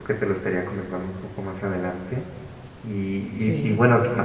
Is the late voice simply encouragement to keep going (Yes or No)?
Yes